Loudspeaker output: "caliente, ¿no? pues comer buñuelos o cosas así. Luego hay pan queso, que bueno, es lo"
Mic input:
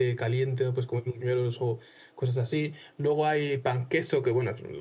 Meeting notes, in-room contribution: none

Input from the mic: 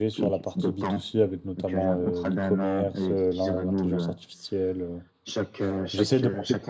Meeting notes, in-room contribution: present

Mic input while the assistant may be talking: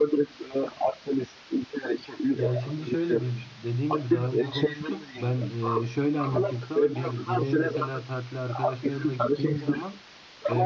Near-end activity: present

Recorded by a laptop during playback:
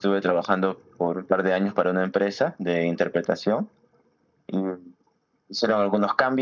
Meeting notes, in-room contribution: none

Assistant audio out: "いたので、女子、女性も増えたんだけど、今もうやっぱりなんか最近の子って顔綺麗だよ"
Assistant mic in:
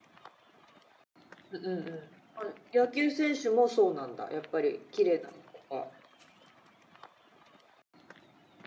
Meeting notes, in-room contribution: present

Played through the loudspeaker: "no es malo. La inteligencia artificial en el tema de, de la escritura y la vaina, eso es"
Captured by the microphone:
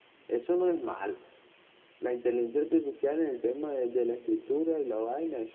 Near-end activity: none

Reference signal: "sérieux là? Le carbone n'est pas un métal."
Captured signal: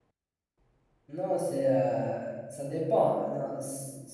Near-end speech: present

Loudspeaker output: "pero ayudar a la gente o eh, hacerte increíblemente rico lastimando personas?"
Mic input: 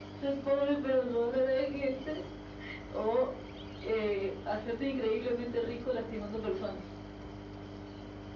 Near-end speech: none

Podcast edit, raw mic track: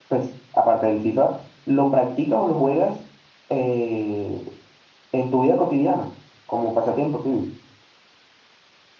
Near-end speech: present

